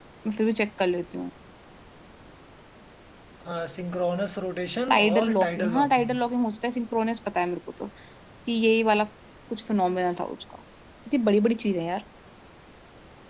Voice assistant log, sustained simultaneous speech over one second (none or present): present